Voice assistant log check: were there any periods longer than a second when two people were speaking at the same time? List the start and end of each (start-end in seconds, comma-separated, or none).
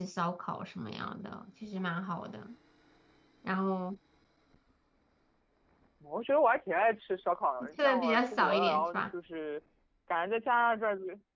7.8-9.0